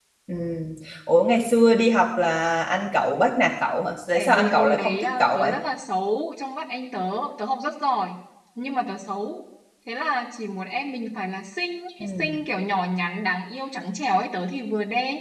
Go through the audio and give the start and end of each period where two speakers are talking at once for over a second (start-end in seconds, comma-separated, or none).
4.1-5.5